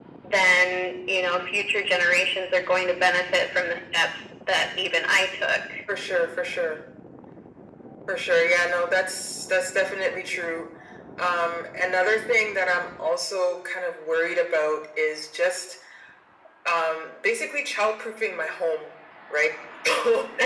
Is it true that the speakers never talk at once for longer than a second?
Yes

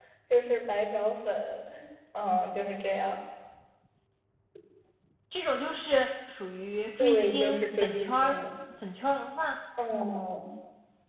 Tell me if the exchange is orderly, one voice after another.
No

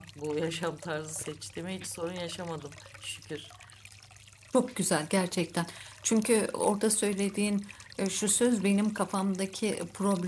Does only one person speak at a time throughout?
Yes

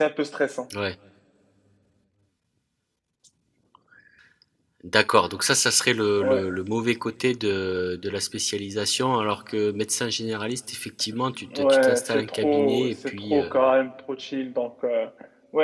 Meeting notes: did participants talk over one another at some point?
Yes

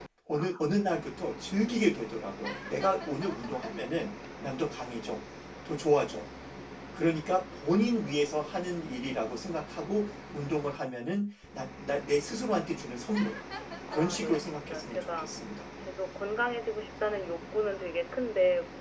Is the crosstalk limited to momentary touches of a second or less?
No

